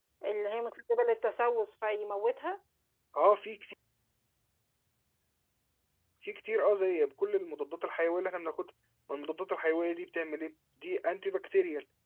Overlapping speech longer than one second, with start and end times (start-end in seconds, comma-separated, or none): none